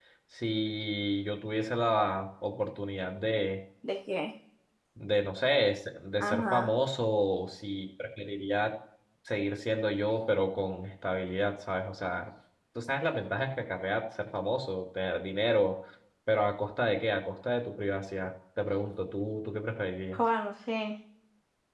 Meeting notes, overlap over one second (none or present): none